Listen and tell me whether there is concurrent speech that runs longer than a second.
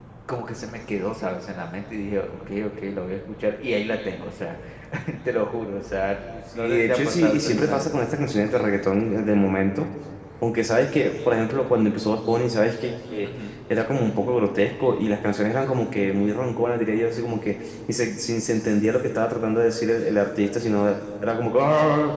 Yes, from 6.5 s

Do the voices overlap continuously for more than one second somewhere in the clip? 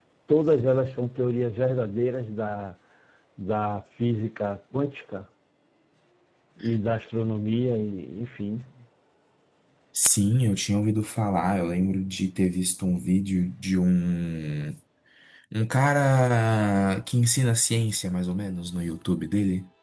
No

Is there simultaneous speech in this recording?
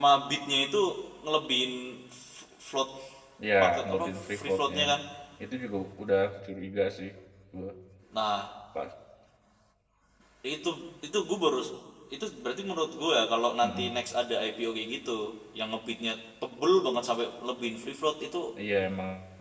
Yes, from 3.6 s

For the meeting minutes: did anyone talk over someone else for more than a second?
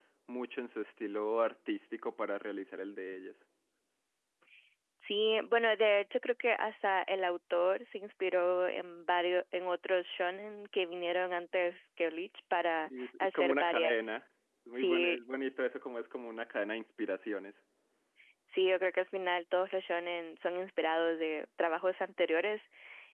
Yes, from 12.7 s

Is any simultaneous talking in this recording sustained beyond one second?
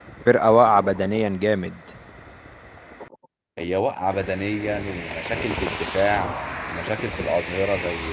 No

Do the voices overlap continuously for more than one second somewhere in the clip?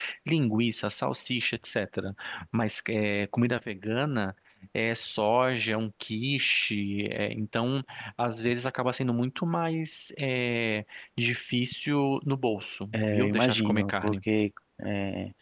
Yes, from 12.9 s

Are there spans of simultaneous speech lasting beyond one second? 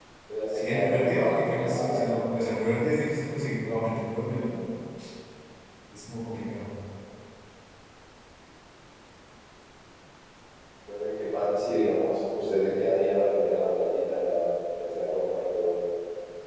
Yes, from 0.5 s

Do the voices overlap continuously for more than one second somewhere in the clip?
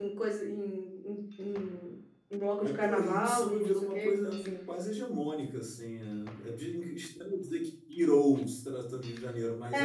Yes, from 2.6 s

